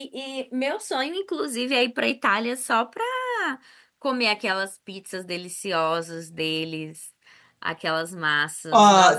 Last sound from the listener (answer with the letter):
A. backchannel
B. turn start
B